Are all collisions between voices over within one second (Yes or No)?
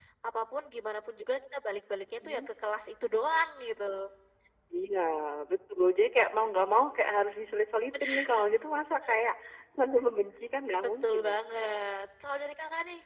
Yes